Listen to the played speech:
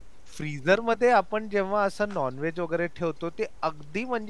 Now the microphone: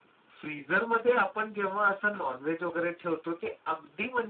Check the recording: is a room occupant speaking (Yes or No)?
No